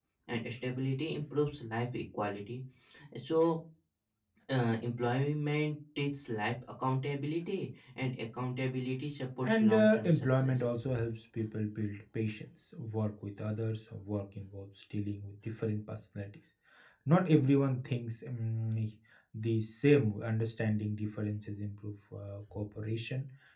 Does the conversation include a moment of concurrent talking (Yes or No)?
Yes